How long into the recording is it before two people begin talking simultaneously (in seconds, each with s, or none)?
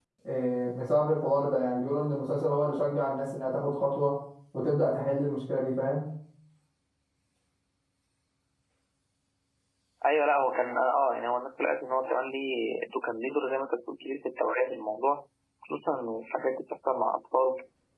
none